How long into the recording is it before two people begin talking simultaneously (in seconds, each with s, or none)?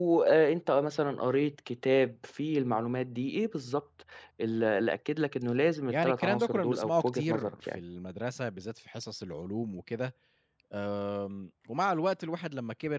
5.9 s